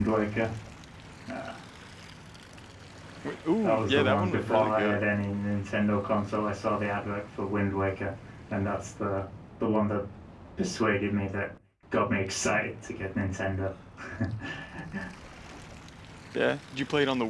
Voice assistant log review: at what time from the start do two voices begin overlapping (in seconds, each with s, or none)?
3.6 s